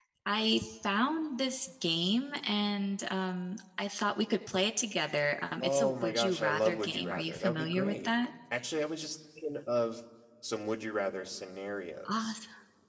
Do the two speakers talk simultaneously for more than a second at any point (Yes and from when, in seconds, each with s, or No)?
Yes, from 5.6 s